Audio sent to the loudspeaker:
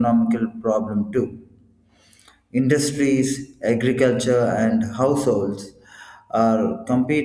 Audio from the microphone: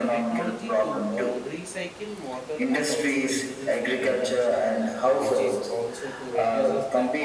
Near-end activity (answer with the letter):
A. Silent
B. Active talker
B